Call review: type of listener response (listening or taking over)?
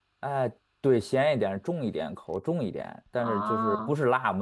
listening